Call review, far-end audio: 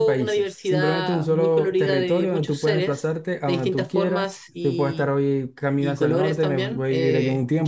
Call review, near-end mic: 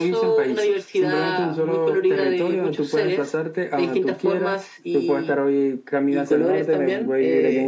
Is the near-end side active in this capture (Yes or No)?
No